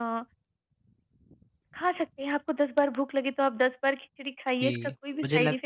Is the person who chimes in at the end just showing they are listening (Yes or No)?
No